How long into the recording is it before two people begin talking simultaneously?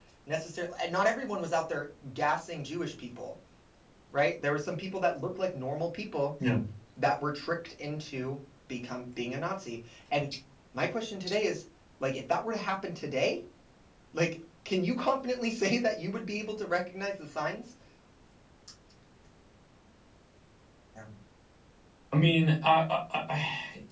none

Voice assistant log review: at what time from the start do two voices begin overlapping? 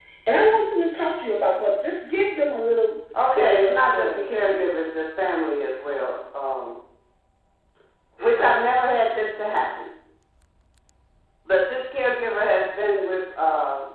3.1 s

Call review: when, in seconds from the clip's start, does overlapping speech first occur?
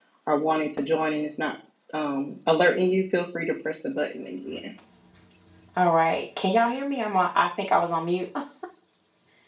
none

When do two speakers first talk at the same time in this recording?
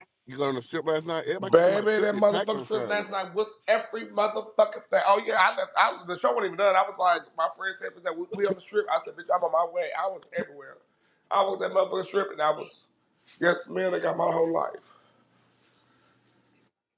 1.4 s

